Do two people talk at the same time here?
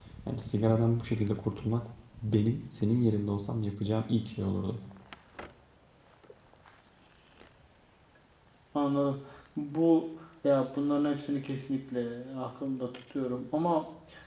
No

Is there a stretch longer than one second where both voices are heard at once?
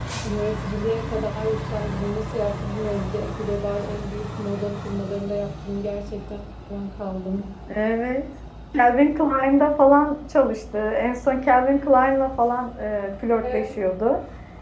No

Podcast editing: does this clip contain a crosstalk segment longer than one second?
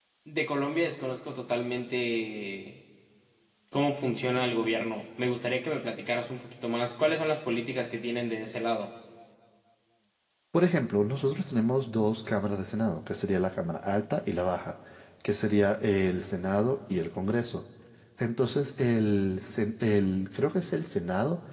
No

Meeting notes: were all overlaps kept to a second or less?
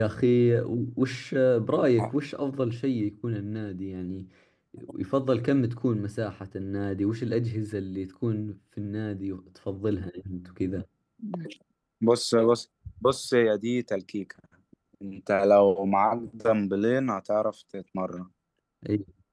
Yes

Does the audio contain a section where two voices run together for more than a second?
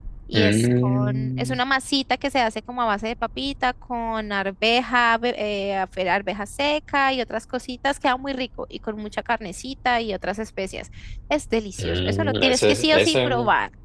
Yes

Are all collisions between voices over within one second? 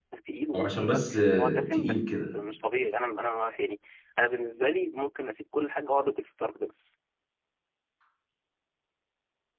No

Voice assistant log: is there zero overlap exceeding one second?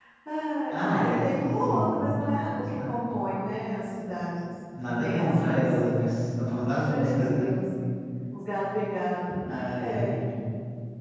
No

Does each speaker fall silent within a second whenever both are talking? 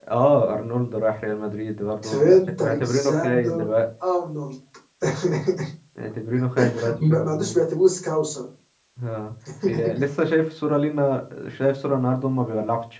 No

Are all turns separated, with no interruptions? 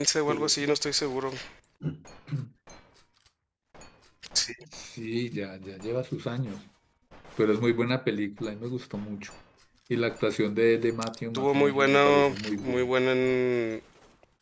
No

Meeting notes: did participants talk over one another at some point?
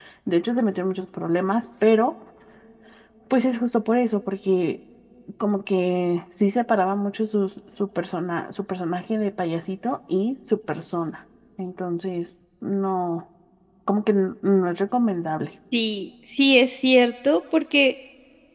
No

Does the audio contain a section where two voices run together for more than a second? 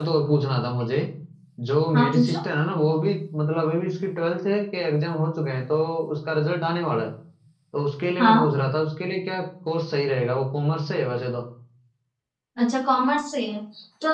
No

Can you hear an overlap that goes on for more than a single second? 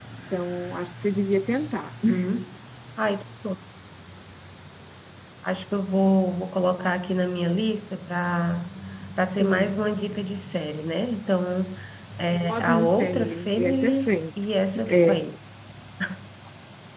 Yes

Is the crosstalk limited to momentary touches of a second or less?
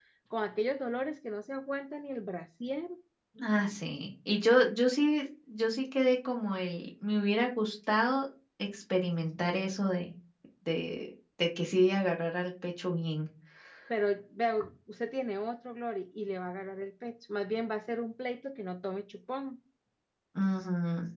Yes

